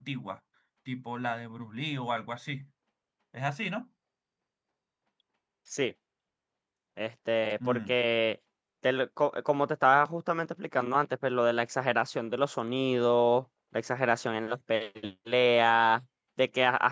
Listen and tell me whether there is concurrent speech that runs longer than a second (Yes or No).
No